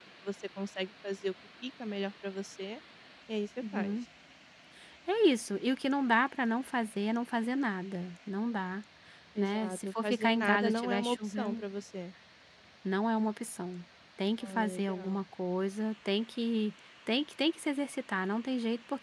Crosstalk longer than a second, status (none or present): present